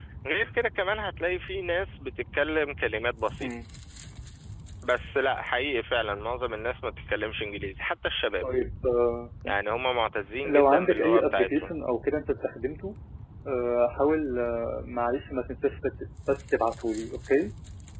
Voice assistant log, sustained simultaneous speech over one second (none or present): present